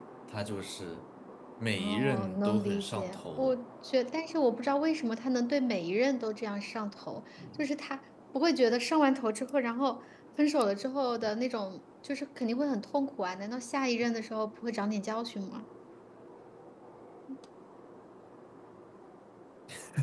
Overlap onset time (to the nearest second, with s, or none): 2 s